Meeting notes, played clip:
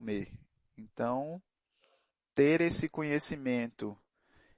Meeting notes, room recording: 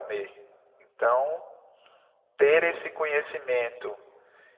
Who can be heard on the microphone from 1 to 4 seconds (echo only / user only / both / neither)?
echo only